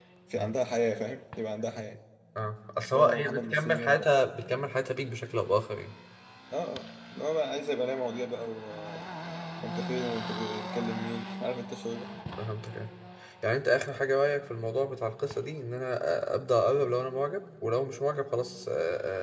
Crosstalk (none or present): present